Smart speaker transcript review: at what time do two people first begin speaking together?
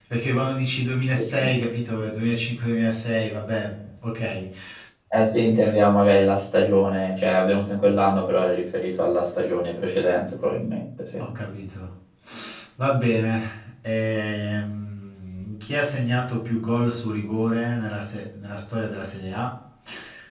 none

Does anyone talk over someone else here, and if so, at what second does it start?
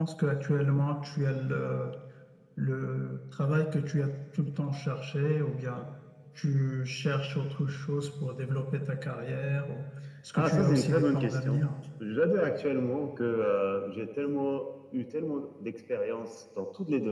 10.3 s

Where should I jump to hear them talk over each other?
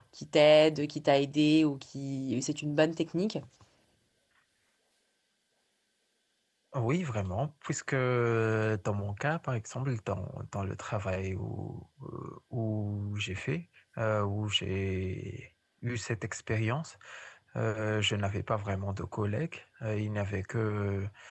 none

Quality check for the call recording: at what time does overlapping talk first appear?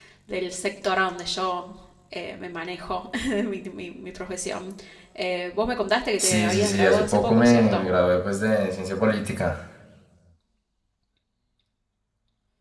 6.2 s

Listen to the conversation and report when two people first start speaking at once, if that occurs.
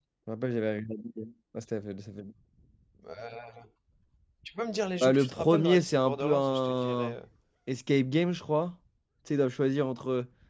5.0 s

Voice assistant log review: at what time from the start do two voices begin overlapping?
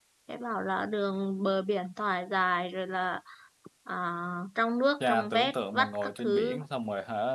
5.0 s

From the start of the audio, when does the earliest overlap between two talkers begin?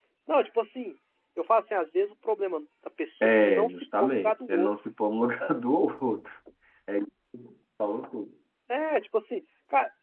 3.2 s

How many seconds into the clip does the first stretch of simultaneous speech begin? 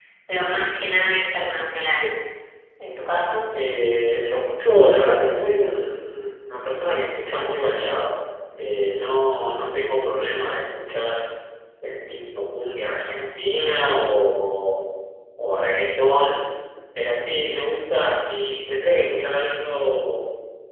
none

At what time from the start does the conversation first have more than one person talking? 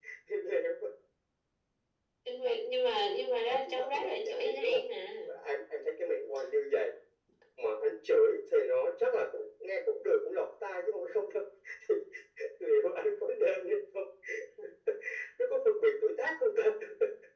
3.4 s

